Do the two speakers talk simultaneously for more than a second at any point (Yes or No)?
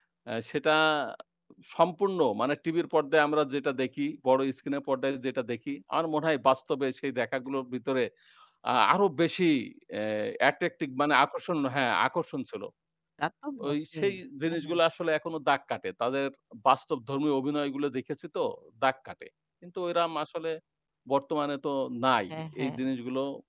No